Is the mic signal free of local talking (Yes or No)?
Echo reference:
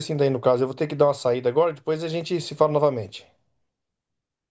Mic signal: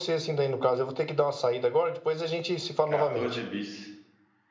No